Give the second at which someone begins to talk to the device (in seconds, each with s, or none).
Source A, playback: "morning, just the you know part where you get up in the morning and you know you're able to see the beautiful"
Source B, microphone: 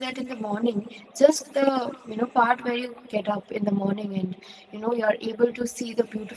none